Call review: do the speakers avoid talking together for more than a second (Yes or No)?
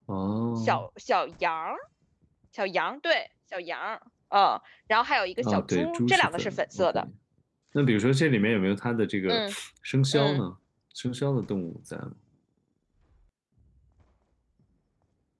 No